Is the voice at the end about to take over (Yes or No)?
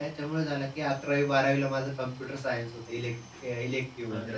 Yes